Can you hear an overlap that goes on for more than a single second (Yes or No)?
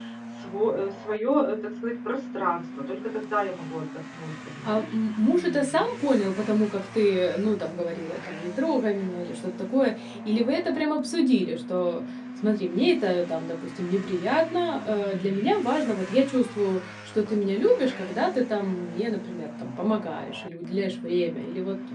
No